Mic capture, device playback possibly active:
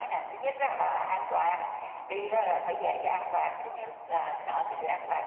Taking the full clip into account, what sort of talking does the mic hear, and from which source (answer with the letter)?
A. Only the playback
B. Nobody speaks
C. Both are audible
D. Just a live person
A